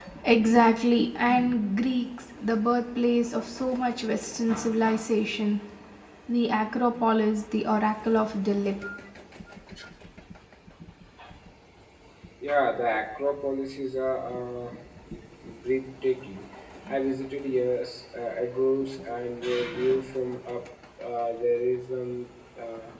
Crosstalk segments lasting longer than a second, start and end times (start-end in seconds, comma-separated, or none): none